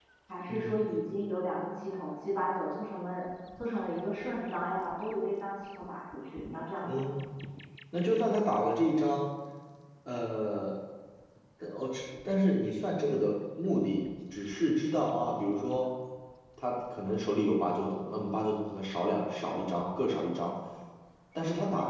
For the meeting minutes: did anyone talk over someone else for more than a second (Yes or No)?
No